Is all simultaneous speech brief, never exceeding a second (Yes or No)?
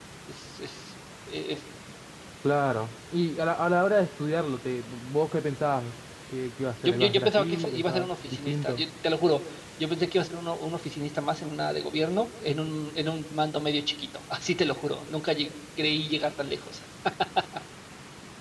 No